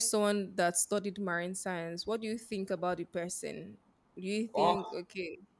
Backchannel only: Yes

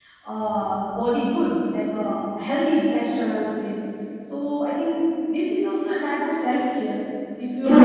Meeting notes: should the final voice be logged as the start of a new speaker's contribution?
Yes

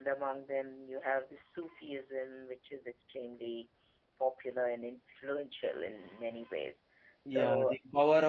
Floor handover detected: Yes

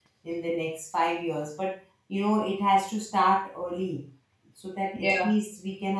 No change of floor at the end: Yes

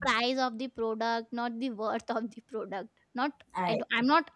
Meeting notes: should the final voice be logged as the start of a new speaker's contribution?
No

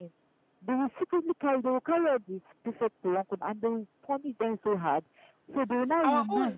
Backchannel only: Yes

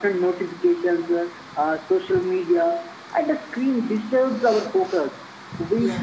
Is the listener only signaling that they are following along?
Yes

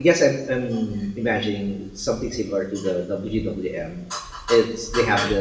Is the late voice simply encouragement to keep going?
Yes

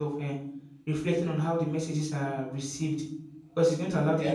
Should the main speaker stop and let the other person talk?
No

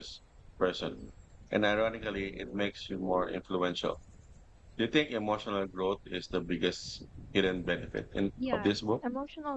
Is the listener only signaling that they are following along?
No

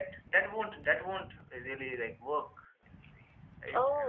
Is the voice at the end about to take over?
Yes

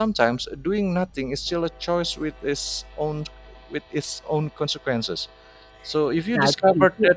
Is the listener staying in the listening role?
No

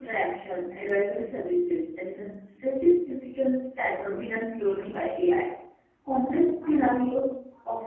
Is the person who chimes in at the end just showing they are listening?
Yes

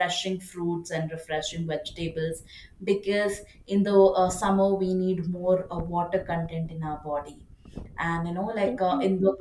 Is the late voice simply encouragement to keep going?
Yes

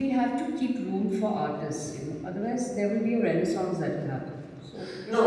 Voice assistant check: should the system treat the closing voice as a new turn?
Yes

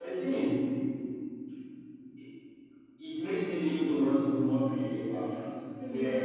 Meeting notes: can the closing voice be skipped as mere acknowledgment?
Yes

